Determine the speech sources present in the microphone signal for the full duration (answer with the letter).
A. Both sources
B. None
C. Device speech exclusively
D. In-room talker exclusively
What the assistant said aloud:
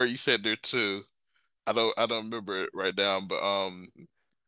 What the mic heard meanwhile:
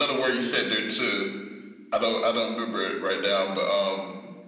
C